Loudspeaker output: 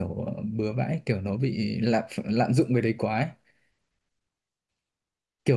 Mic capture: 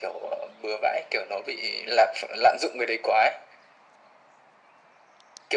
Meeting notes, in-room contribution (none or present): none